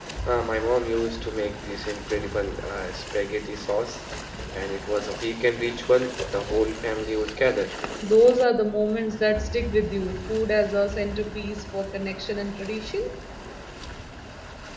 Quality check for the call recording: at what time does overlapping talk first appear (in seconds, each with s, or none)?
none